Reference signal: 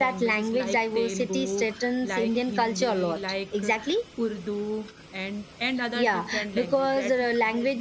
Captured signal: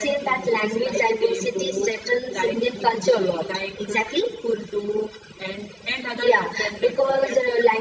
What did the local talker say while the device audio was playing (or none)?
none